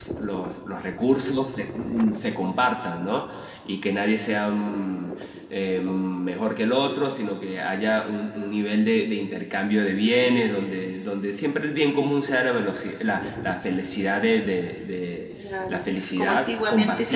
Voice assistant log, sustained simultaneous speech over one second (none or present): present